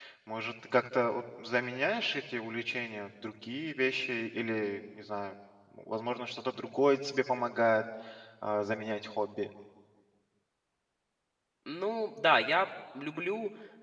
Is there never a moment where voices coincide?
Yes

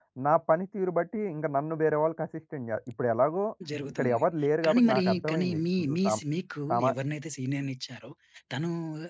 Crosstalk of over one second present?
Yes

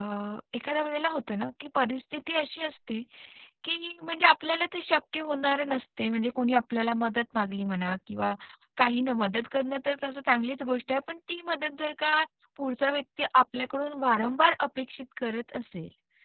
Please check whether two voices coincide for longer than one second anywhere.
No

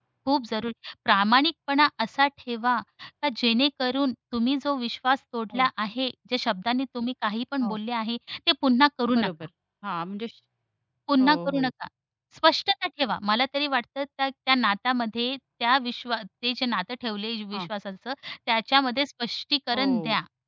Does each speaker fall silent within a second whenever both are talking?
Yes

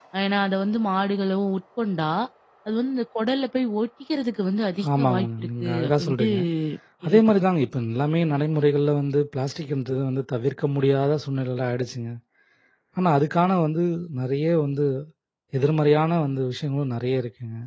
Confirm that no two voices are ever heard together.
No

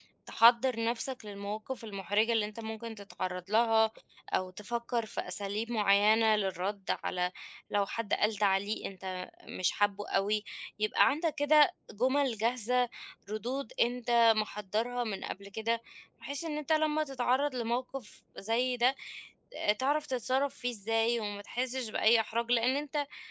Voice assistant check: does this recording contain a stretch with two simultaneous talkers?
No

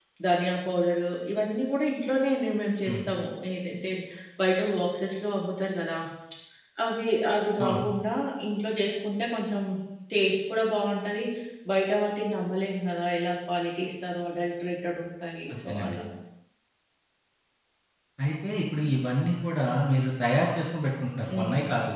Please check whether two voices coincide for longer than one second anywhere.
No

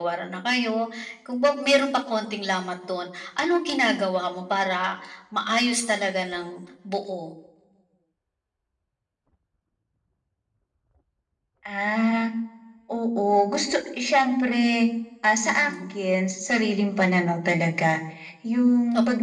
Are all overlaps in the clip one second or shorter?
Yes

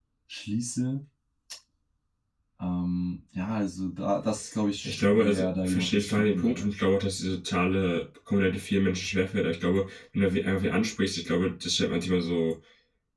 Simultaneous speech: Yes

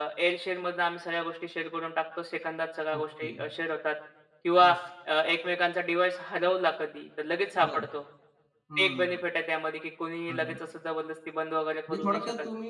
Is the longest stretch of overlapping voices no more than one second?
Yes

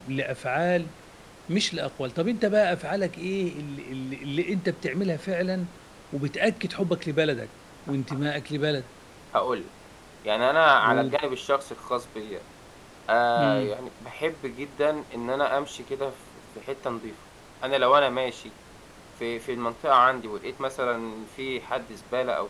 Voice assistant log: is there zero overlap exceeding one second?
Yes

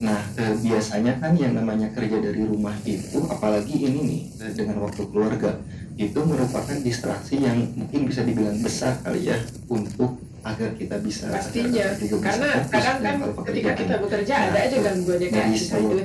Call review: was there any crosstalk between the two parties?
Yes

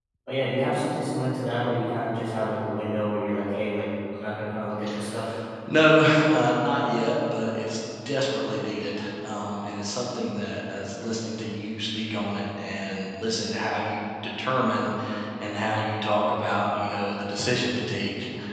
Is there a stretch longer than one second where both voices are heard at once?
No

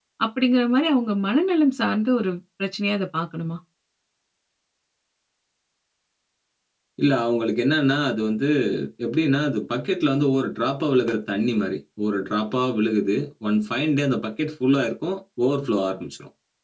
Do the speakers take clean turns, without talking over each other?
Yes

